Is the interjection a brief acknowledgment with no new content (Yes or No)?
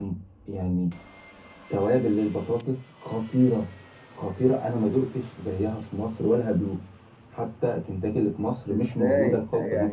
No